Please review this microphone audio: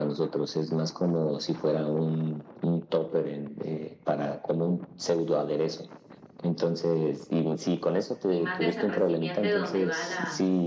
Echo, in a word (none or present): present